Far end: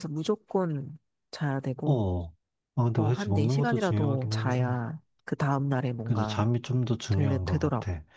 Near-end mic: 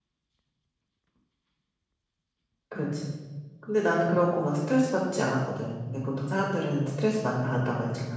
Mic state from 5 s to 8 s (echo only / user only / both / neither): user only